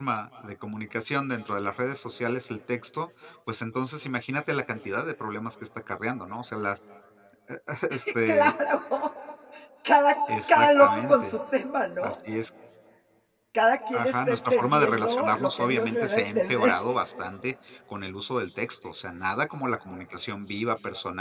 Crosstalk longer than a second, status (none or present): present